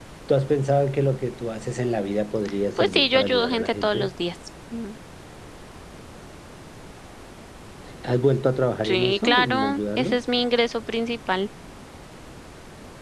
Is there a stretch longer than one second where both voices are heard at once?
Yes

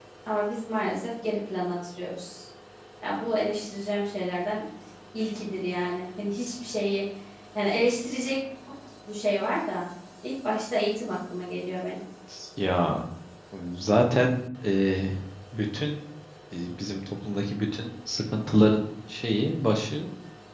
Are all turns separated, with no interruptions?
Yes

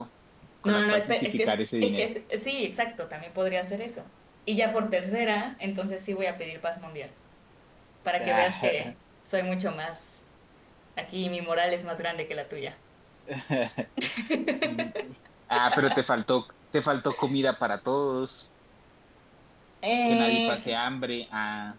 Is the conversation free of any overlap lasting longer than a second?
No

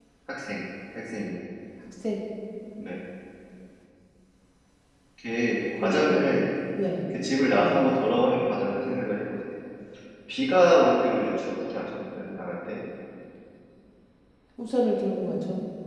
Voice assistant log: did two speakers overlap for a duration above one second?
No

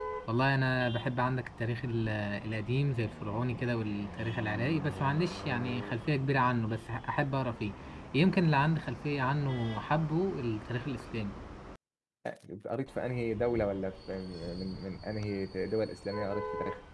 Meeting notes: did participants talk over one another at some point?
No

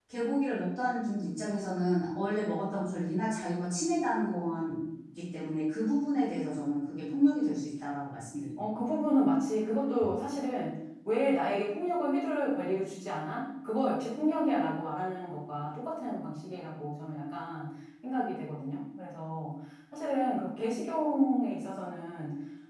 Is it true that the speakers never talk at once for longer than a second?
Yes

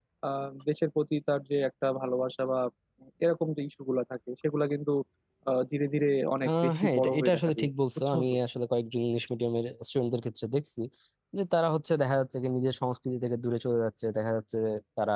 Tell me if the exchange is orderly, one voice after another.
No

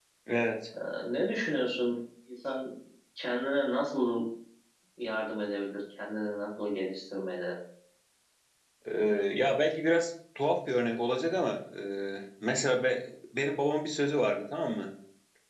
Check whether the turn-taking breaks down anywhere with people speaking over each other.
No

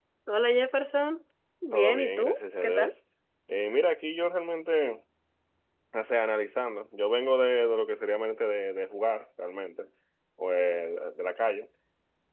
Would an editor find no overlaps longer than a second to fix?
No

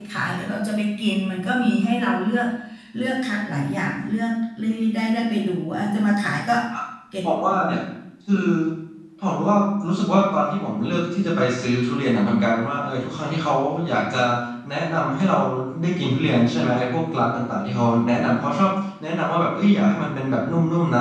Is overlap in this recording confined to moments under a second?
Yes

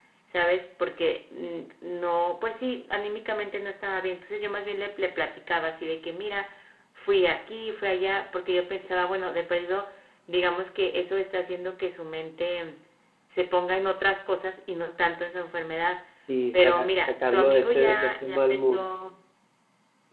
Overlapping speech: Yes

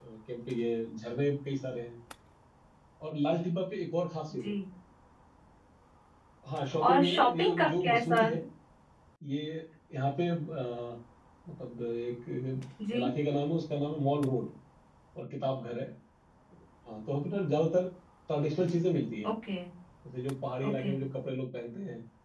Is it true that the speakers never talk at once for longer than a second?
No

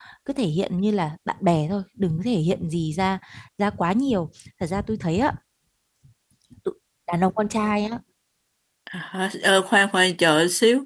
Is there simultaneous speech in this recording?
No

